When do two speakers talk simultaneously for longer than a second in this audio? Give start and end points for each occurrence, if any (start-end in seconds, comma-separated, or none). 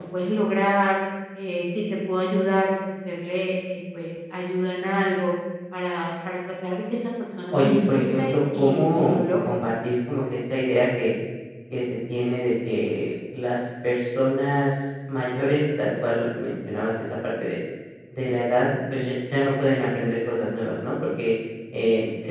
7.5-9.6